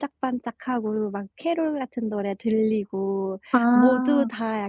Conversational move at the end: listening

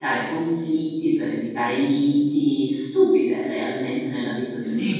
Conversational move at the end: taking over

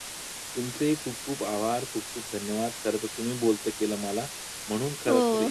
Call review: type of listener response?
listening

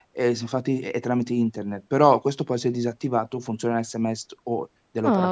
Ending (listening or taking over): taking over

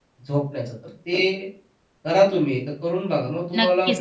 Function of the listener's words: taking over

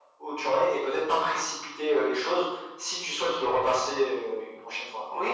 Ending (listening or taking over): taking over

